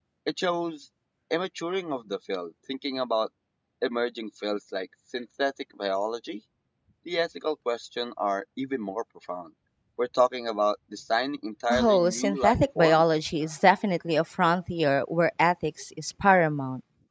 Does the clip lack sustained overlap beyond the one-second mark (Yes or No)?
No